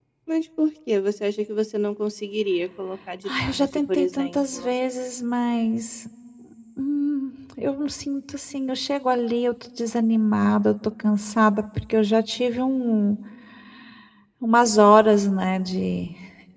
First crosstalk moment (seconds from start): 3.3 s

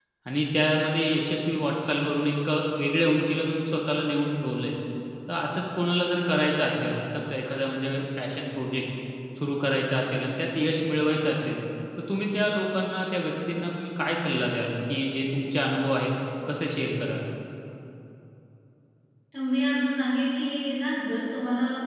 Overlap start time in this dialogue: none

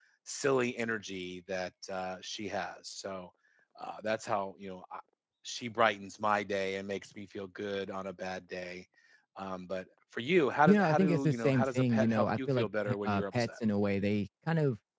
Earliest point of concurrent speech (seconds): 10.7 s

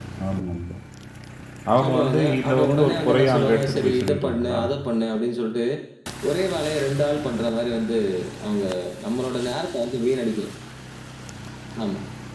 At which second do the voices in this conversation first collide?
1.8 s

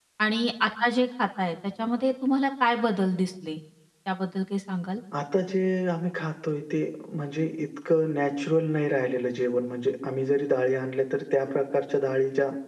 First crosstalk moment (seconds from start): none

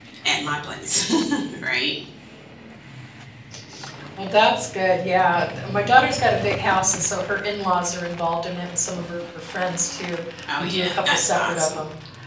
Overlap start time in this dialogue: 10.5 s

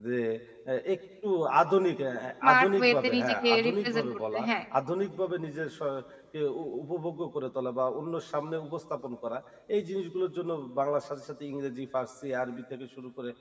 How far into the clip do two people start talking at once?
2.4 s

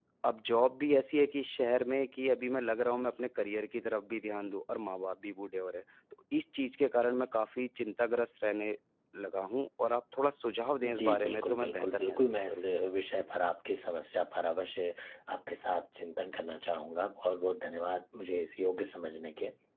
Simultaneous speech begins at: 10.8 s

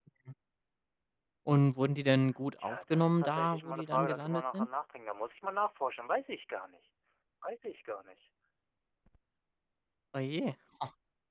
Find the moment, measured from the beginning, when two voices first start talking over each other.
2.6 s

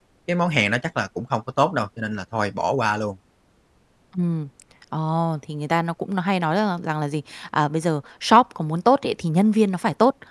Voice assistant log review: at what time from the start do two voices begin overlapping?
none

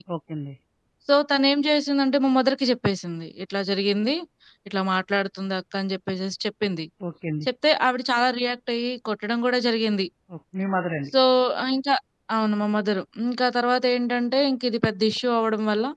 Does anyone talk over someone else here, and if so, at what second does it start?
none

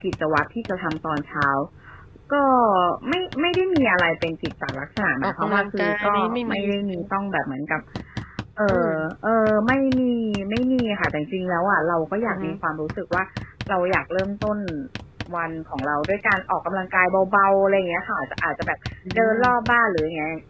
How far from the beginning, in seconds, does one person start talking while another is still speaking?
5.2 s

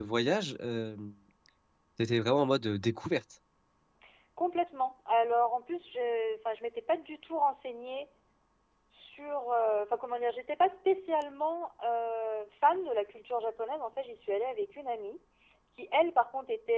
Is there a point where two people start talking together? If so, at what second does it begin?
none

